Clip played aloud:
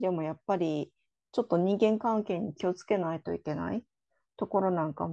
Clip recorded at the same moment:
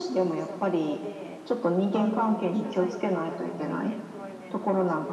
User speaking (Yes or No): Yes